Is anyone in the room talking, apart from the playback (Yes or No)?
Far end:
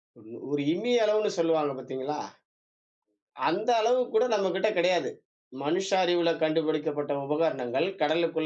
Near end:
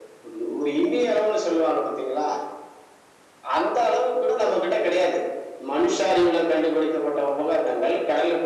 No